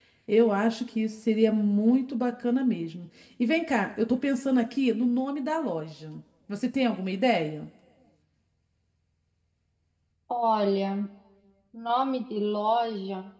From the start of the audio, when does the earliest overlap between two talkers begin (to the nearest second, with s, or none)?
none